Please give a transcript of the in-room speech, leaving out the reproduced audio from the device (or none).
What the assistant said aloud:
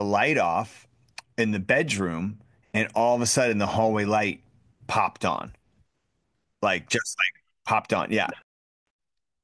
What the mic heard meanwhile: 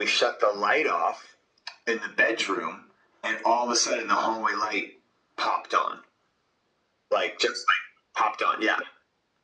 none